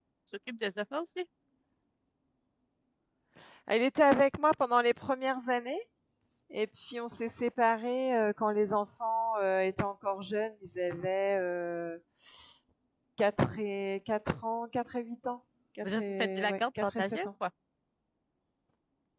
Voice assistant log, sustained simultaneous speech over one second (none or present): present